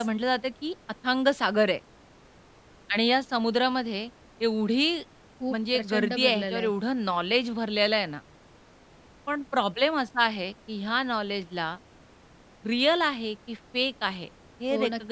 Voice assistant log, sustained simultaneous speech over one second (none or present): present